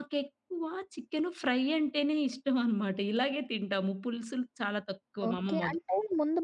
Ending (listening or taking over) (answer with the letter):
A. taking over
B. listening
A